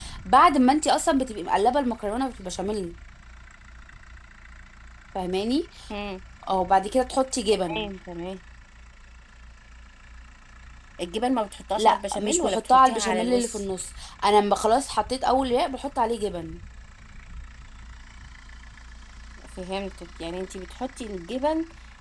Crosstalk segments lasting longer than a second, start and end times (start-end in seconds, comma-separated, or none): 11.8-13.6